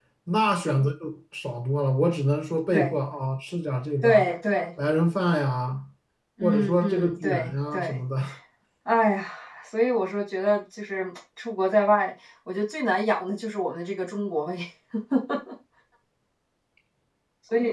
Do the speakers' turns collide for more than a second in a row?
Yes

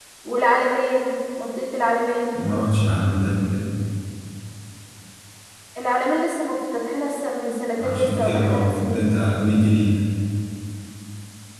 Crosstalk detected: Yes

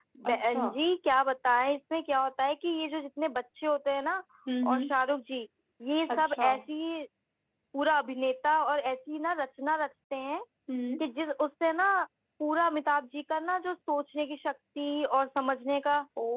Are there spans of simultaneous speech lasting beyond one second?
No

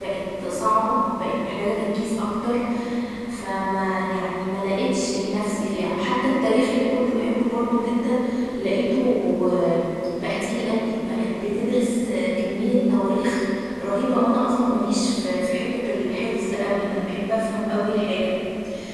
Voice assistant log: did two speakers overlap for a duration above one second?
No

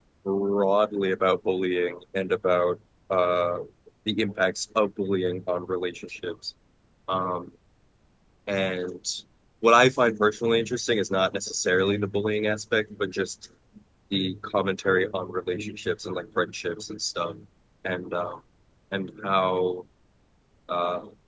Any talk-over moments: No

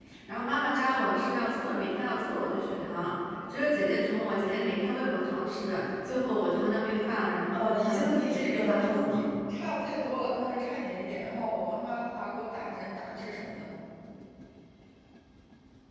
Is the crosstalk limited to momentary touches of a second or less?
No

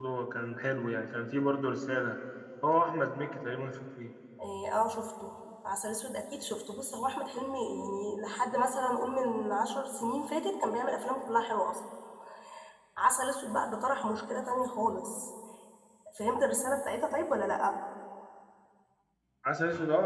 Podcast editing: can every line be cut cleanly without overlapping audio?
Yes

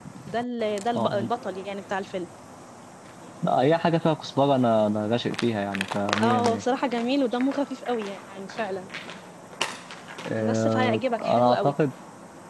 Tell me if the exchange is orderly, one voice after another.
No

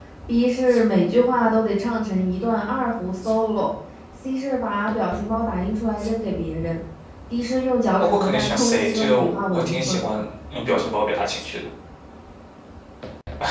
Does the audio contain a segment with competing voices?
Yes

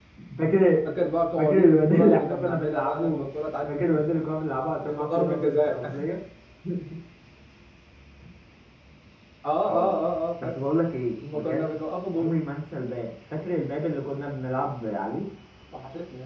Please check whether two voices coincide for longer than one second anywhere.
Yes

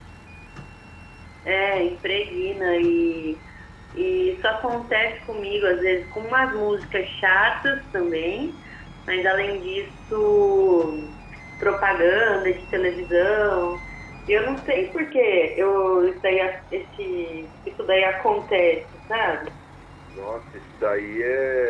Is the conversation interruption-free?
Yes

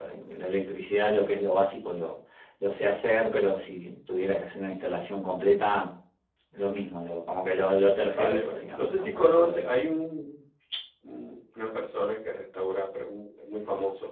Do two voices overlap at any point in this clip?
Yes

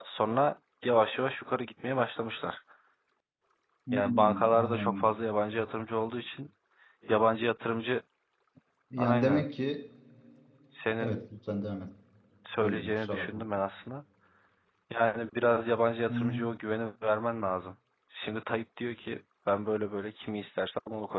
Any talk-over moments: Yes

